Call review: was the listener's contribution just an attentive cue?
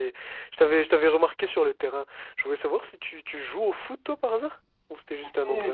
No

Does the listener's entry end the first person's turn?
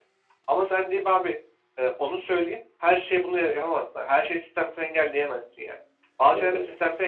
No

